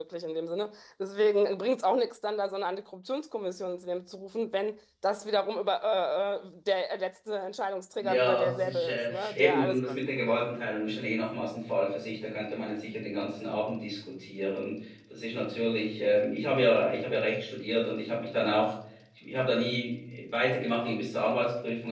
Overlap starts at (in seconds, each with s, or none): 8.0 s